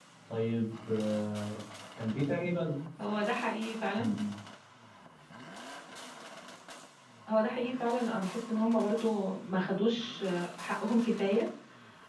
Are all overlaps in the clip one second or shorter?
Yes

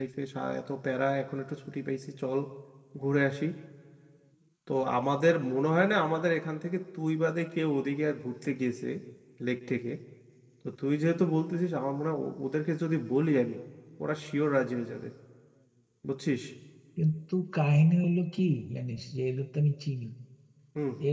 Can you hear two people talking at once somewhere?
No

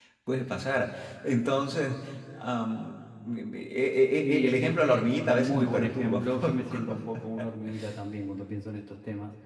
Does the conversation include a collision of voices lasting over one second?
Yes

